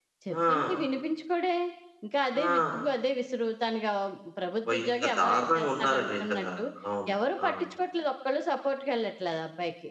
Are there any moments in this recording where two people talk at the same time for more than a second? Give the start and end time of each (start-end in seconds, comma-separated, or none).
4.7-6.5